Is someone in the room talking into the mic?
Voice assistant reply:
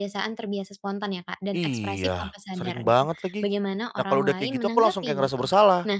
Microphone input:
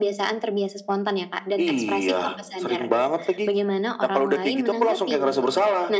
No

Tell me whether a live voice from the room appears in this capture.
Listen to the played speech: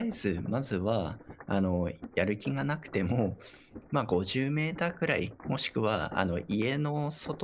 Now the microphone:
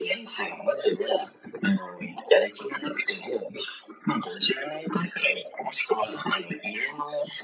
No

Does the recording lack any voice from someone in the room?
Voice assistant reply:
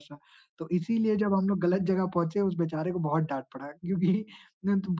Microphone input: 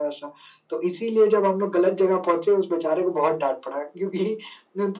Yes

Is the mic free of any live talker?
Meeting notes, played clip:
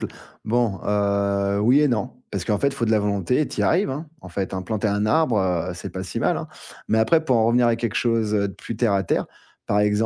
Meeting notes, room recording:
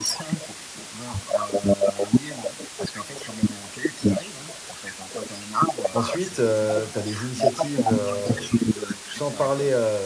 No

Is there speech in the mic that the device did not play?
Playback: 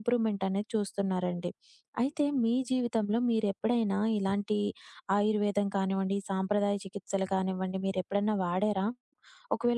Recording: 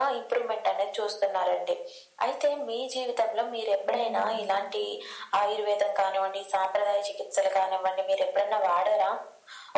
Yes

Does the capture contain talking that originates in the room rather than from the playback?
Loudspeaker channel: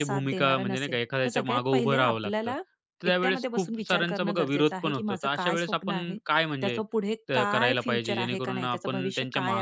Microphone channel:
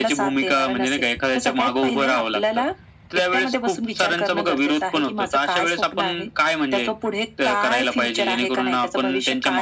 No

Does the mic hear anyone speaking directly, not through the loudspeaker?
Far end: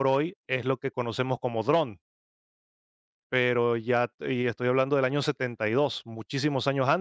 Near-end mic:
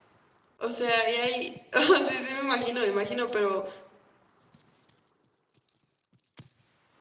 Yes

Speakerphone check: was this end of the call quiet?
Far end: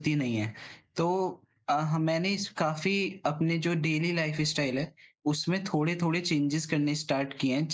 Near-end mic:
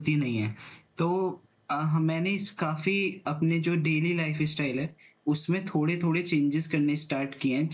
Yes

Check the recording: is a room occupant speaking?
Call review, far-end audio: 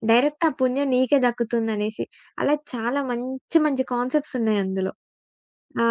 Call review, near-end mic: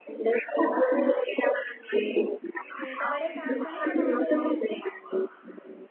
Yes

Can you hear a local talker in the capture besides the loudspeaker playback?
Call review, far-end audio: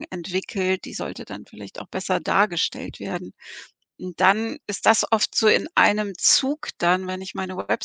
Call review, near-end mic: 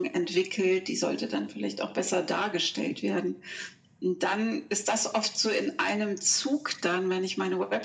No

